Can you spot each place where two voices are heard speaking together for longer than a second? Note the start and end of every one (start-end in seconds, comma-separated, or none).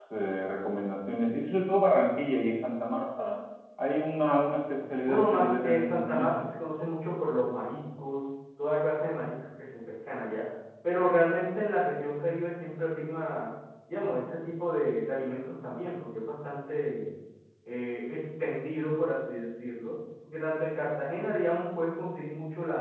5.1-6.4